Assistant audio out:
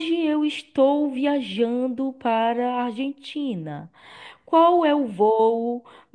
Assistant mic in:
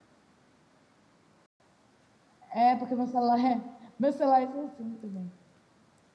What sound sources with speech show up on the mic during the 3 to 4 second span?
user only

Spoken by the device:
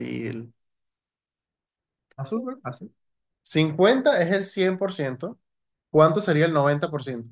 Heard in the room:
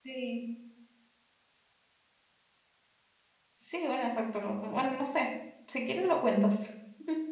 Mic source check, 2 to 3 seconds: neither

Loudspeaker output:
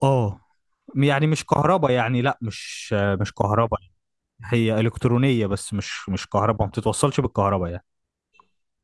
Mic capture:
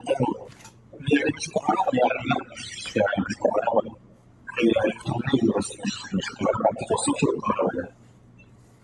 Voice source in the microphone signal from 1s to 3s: echo only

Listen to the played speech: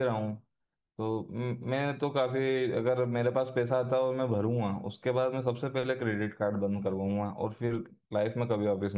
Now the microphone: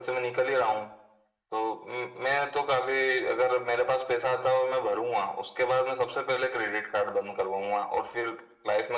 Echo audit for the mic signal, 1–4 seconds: echo only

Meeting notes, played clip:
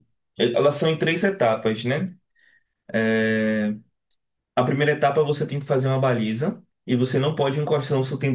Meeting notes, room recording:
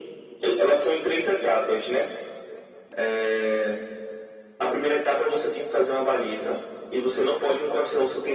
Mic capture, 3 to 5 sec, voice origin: echo only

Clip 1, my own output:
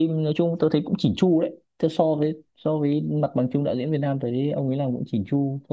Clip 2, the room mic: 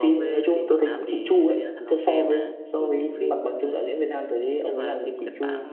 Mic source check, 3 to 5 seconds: both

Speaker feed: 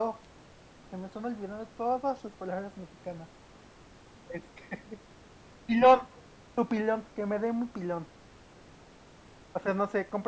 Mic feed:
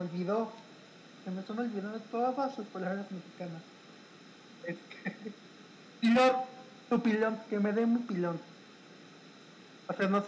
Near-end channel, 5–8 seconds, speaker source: echo only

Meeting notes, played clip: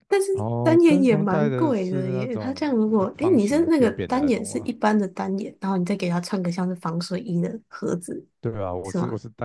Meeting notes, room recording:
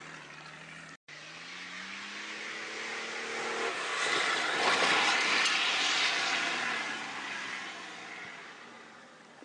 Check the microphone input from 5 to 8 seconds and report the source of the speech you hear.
neither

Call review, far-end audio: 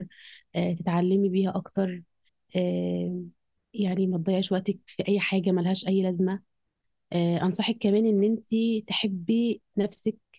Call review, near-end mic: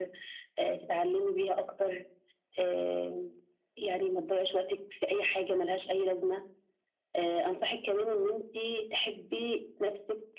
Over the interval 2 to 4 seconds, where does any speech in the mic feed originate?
echo only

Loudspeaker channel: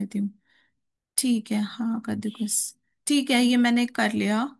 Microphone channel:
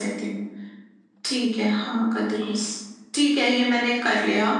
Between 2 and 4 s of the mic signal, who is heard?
echo only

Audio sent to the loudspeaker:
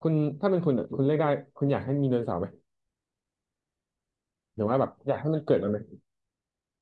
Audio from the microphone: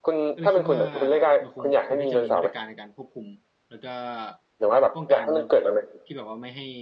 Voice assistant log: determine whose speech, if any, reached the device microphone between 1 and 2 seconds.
both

